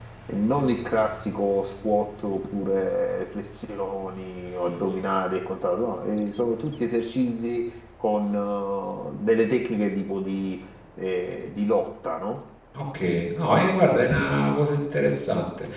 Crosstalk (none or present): none